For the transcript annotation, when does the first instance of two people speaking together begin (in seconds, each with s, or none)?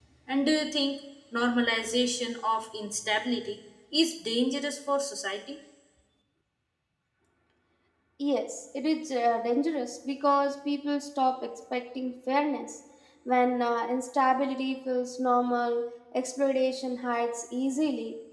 none